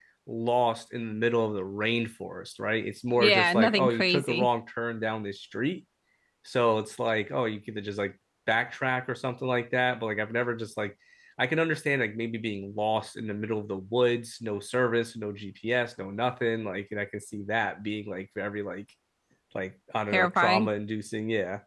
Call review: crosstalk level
present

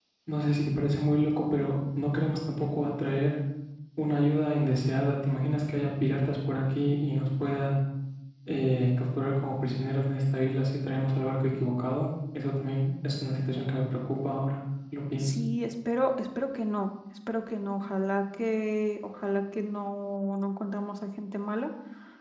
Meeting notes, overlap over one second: none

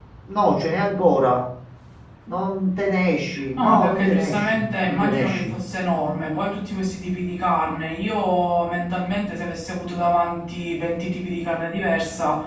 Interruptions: present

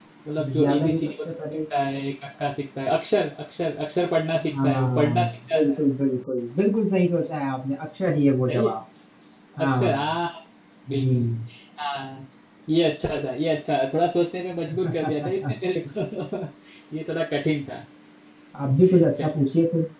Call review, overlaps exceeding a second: present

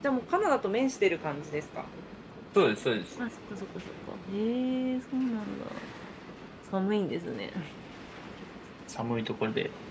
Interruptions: none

